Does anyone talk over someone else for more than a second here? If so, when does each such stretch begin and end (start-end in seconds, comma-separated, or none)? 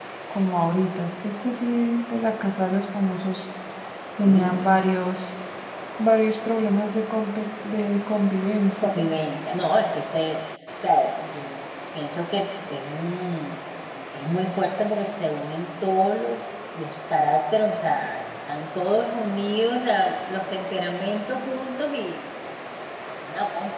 none